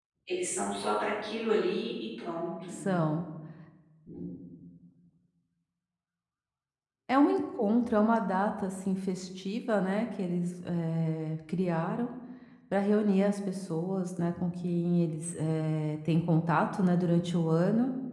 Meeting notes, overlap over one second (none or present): none